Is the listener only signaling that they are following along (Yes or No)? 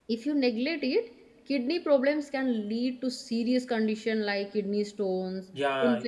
No